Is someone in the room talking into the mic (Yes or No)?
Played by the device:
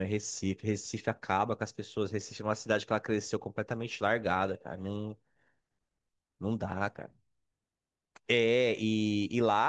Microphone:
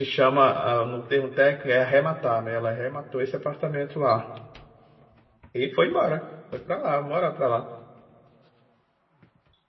Yes